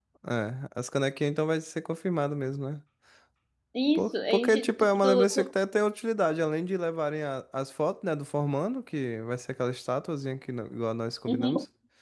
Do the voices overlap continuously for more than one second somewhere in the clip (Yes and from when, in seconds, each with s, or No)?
Yes, from 4.0 s